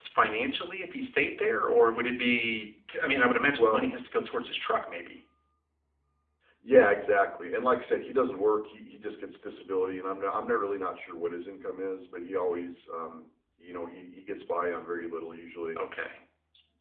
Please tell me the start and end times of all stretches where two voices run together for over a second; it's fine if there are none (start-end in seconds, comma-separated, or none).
none